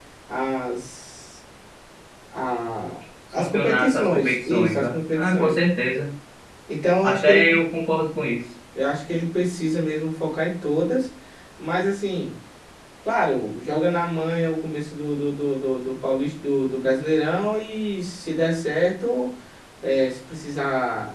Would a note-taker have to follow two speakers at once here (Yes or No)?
Yes